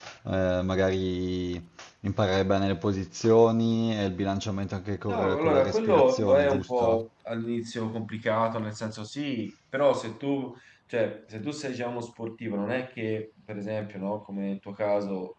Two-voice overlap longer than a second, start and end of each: 5.1-7.0

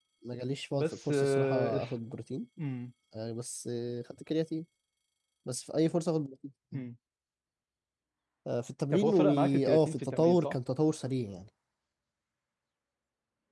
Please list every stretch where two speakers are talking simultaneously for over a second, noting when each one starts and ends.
0.7-2.0, 8.9-10.6

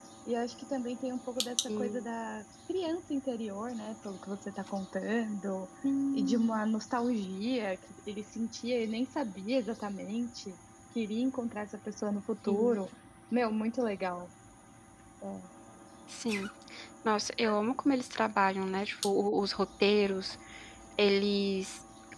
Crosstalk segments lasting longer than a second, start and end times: none

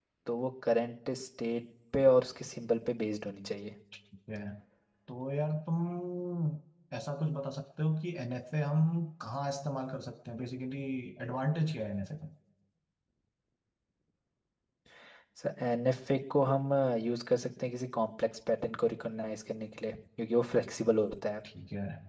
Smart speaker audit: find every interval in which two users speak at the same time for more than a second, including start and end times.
none

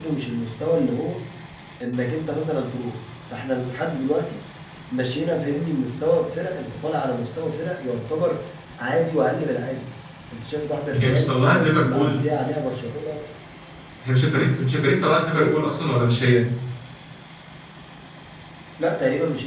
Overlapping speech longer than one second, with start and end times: 11.0-12.3

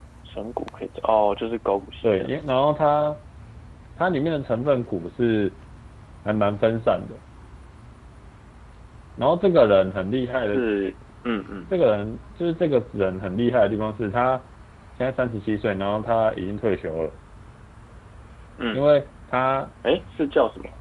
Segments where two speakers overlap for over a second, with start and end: none

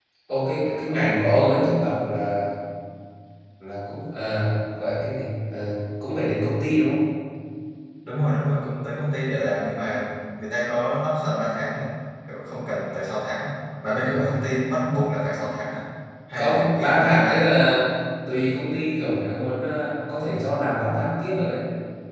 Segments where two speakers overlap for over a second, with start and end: 16.4-17.6

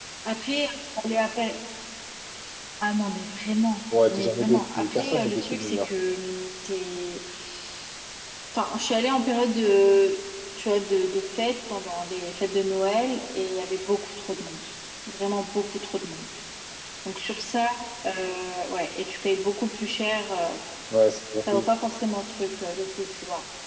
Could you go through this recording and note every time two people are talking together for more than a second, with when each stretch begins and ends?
4.1-5.9

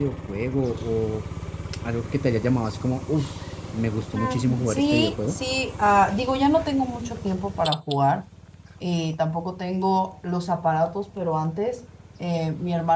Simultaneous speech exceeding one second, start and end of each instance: 4.1-5.4

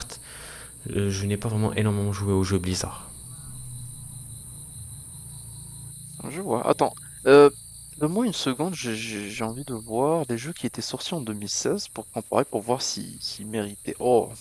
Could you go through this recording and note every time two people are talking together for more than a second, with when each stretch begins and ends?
none

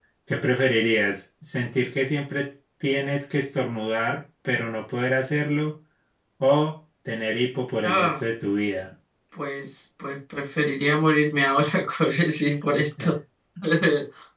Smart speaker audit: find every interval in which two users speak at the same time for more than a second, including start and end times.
none

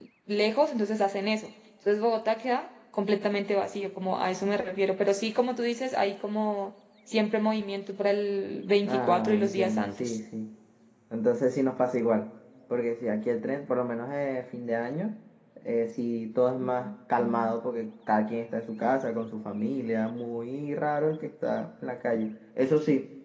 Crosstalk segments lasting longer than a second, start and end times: 8.8-10.2

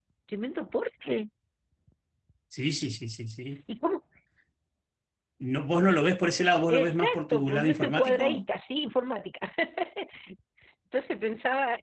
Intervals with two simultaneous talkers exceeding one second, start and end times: 6.7-8.4

